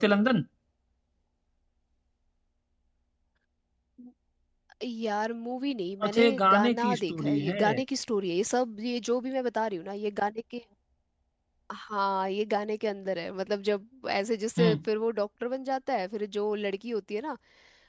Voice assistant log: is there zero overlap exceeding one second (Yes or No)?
No